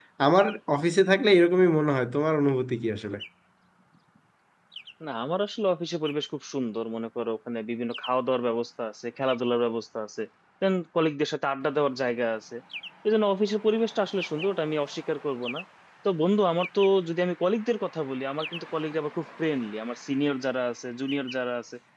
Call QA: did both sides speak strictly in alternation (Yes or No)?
Yes